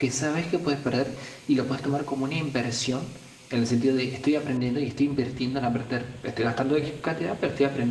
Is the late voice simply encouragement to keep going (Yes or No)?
Yes